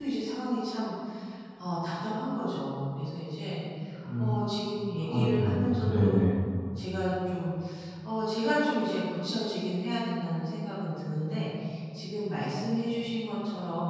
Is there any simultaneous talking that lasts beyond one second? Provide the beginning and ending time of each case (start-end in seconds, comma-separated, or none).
5.0-6.3